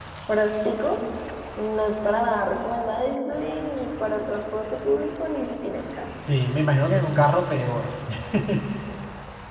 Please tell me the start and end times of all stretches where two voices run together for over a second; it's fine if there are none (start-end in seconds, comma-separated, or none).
none